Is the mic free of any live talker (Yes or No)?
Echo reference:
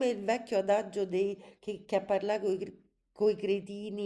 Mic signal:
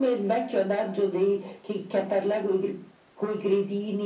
Yes